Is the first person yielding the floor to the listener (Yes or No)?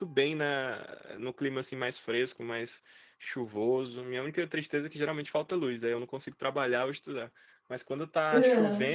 No